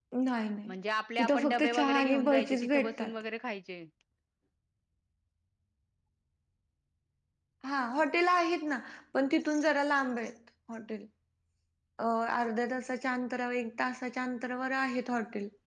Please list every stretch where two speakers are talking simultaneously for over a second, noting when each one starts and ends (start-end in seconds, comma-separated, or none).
1.2-3.1